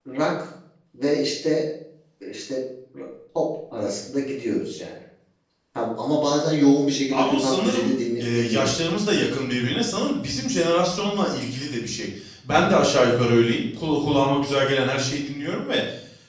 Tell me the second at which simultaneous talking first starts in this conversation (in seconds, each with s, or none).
7.1 s